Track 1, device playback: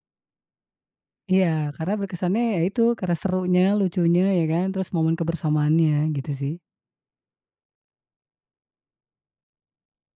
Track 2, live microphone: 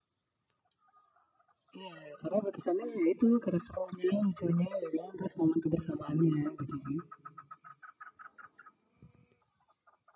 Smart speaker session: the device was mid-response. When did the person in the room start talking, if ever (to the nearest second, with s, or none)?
none